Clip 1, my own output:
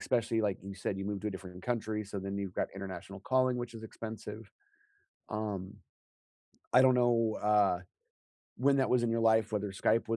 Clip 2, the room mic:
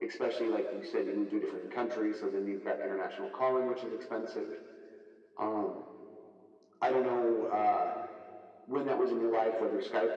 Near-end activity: none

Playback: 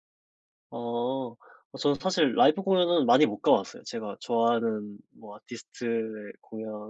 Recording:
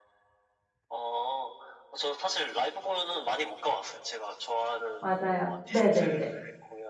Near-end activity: present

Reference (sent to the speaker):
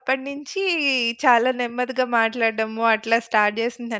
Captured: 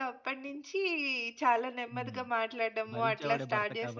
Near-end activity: present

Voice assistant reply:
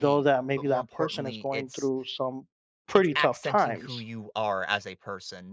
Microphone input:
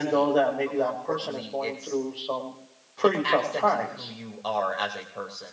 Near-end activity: none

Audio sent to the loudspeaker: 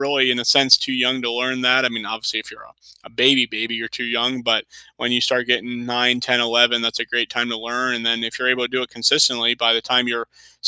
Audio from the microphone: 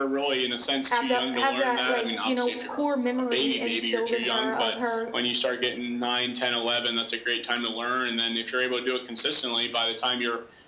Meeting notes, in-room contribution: present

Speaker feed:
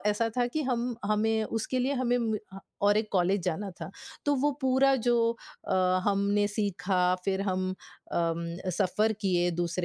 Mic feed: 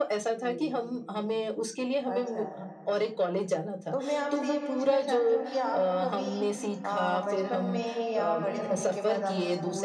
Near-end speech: present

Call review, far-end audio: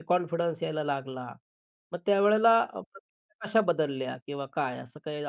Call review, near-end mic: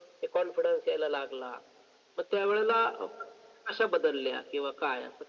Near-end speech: none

